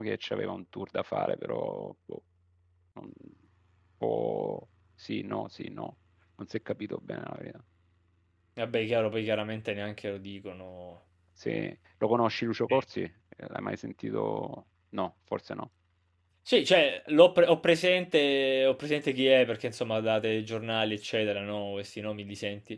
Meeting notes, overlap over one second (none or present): none